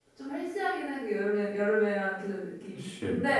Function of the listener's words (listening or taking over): listening